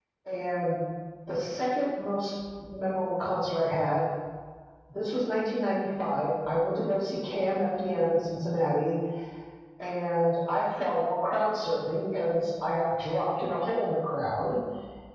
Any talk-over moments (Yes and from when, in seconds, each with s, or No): No